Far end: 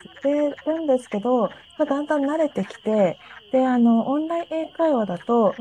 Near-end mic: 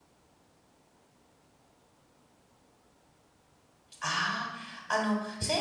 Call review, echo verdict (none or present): none